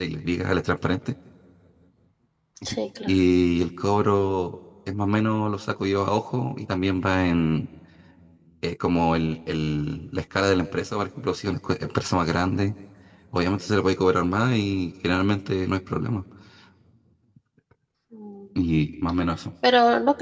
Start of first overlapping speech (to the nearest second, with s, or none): none